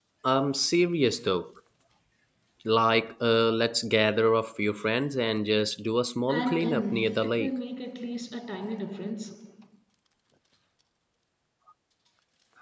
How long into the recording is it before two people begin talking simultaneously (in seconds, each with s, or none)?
6.3 s